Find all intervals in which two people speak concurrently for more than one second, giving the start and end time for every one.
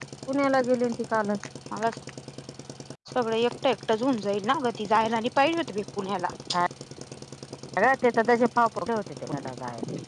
none

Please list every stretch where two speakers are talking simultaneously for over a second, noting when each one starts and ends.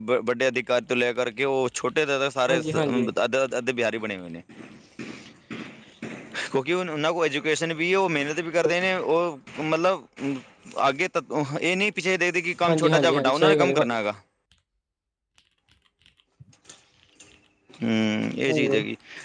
12.7-13.9

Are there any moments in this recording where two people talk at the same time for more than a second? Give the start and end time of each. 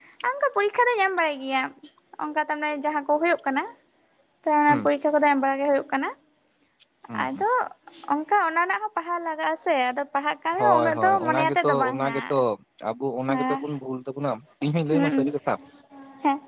10.6-12.3

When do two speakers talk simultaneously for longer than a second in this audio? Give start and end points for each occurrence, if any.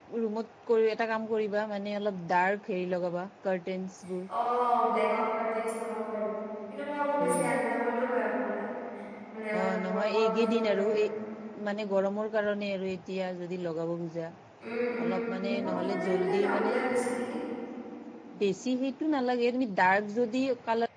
9.6-11.0, 15.1-16.7

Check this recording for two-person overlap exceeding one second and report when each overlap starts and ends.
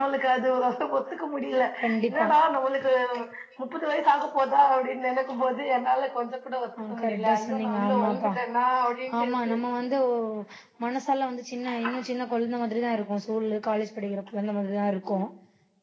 6.9-8.3

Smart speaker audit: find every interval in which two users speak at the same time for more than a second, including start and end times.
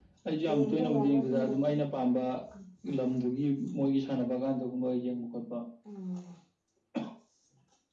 0.5-1.7

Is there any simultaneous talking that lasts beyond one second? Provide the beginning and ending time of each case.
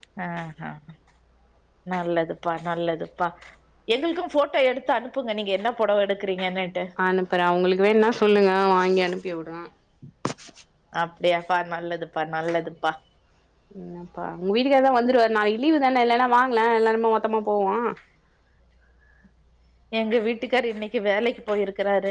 none

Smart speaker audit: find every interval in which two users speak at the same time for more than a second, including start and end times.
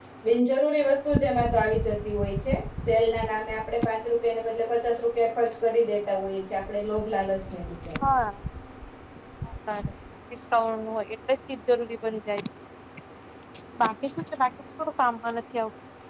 none

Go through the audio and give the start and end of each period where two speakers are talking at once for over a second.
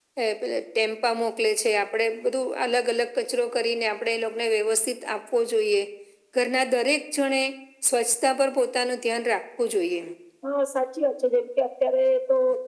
none

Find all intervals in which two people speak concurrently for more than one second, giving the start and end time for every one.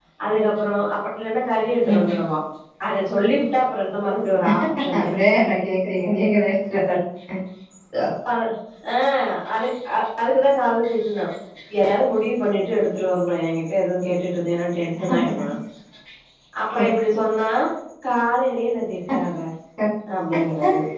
none

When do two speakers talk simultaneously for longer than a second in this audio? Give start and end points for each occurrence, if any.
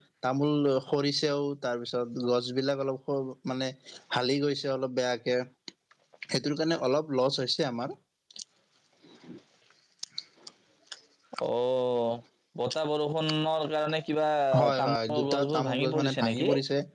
14.8-16.4

